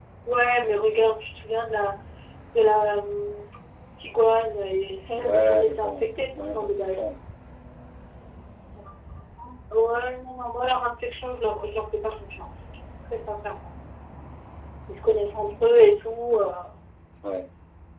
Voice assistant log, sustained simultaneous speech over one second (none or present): present